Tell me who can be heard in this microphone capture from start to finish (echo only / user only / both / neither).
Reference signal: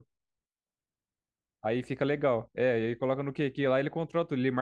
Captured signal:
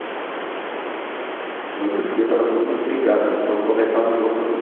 user only